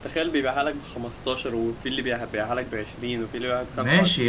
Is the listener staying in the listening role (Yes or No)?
No